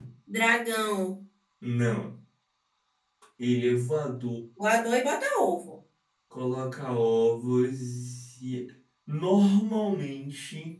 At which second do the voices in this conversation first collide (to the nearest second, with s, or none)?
none